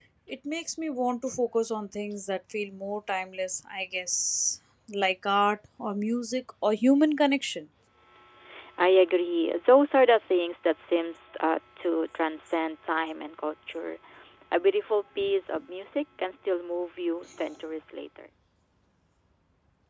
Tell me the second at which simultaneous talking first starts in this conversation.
none

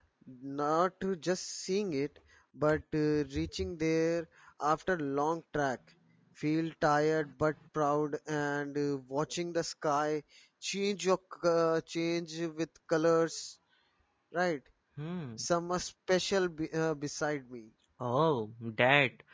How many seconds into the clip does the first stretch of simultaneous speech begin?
none

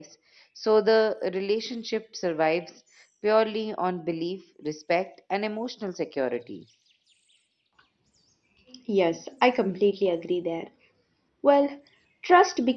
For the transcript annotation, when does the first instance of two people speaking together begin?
none

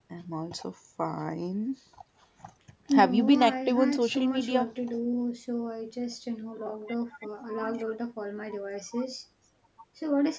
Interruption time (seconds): 2.9 s

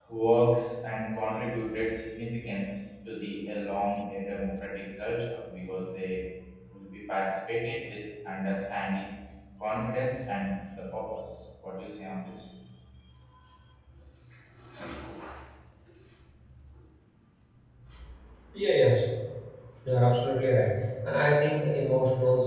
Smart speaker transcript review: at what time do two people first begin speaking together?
none

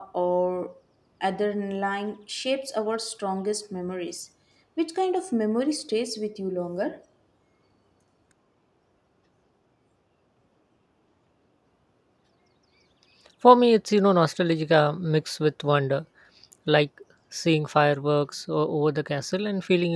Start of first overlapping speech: none

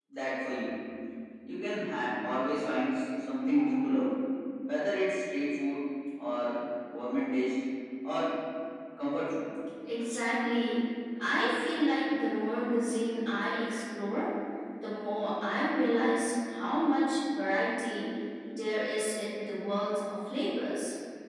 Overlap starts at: none

